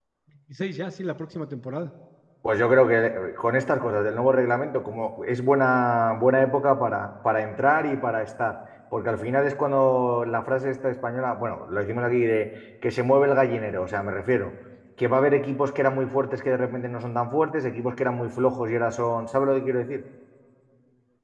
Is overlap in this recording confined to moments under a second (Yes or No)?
Yes